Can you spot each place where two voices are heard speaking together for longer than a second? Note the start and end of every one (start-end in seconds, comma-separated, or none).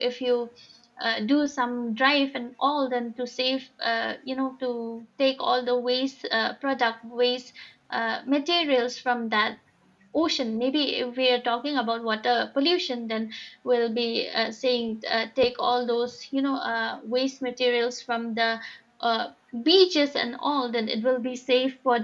none